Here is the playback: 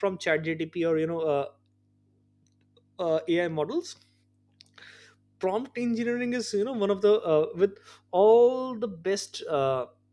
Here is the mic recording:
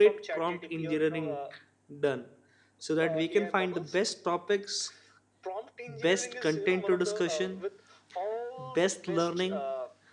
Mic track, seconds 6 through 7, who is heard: both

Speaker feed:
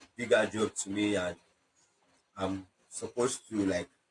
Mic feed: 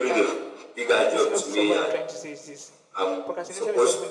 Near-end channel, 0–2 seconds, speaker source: both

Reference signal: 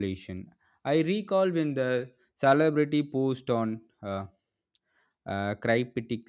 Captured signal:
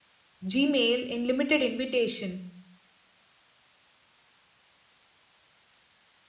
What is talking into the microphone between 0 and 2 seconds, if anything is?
user only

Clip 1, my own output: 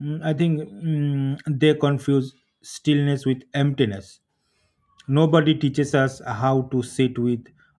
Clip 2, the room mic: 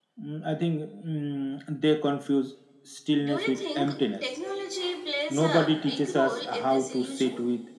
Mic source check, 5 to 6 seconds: both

